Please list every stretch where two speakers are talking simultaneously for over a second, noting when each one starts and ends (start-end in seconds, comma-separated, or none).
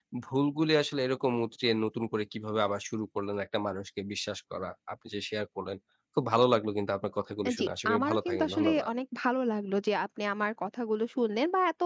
7.5-8.9